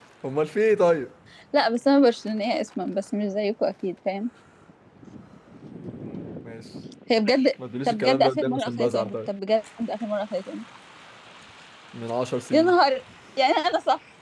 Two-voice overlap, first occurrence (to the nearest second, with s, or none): 8 s